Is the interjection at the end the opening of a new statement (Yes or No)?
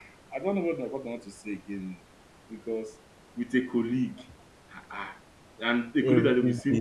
No